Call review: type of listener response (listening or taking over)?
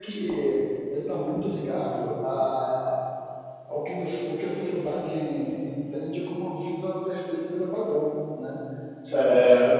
listening